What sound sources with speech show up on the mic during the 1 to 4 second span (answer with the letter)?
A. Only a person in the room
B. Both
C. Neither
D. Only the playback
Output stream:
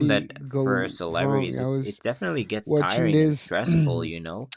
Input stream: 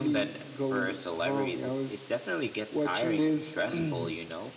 D